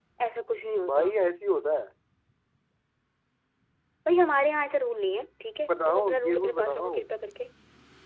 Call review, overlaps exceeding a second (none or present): present